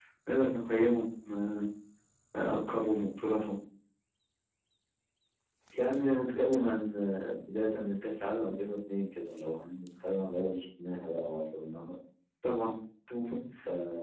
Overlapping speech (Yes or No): No